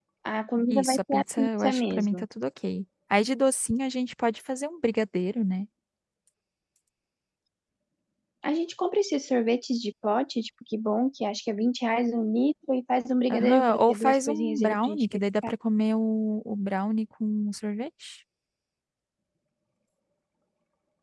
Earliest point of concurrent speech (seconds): 0.7 s

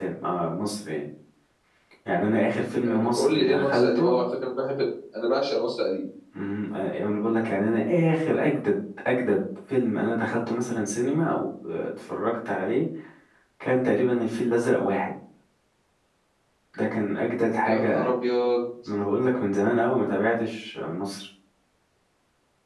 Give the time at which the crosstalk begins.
2.9 s

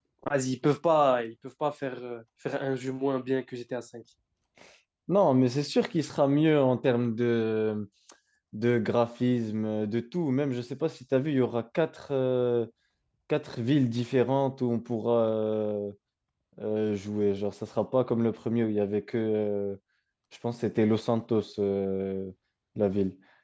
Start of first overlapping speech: none

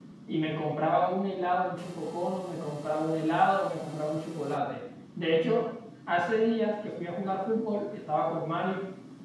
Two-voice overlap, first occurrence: none

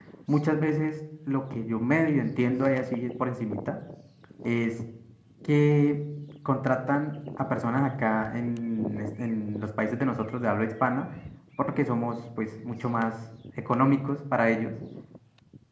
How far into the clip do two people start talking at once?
none

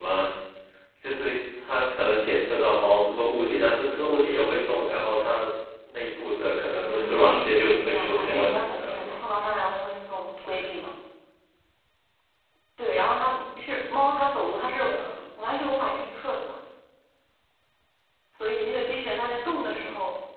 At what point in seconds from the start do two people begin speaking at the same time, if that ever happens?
6.8 s

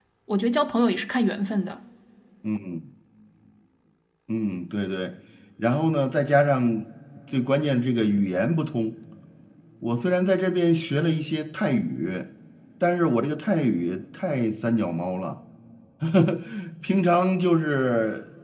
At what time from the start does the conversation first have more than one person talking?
none

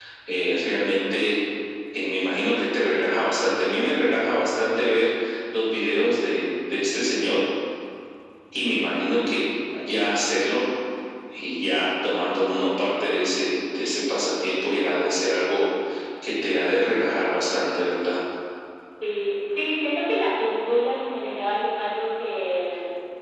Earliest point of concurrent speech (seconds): none

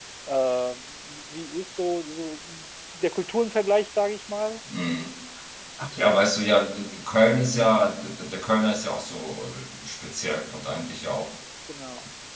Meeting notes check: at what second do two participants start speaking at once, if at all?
none

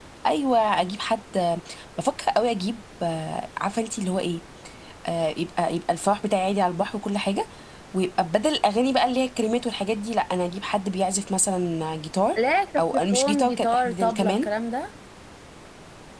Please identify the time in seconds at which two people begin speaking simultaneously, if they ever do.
12.8 s

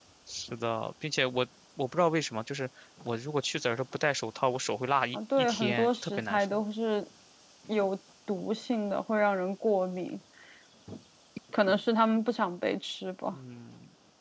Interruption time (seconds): 5.1 s

